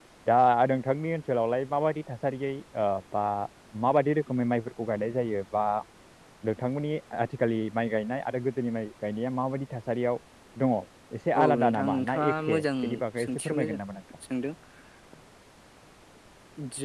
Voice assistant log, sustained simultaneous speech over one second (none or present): present